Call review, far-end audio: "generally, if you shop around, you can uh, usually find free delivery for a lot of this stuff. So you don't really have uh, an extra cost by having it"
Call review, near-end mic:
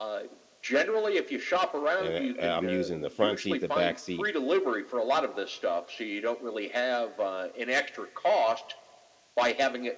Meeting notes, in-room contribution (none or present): present